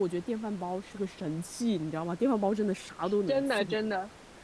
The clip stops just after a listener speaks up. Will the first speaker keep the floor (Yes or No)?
No